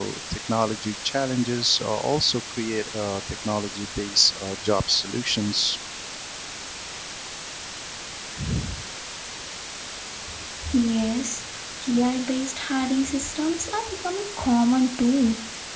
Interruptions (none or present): none